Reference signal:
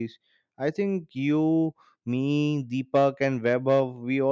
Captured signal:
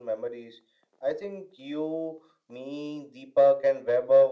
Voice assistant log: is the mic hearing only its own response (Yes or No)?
Yes